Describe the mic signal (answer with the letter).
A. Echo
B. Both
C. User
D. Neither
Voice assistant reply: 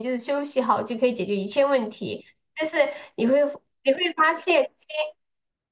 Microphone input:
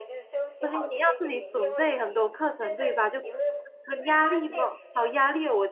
B